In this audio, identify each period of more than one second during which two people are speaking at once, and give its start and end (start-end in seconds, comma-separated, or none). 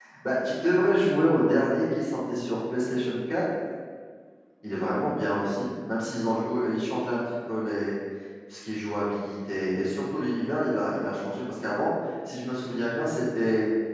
none